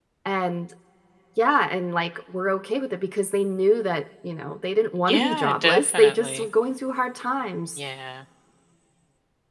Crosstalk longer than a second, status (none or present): present